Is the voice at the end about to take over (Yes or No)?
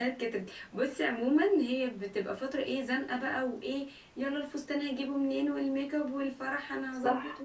No